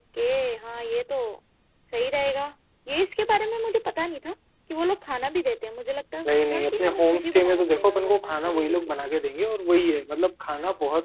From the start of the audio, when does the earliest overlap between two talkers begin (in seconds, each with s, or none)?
6.2 s